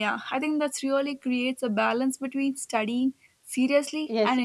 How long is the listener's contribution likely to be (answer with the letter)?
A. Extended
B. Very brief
A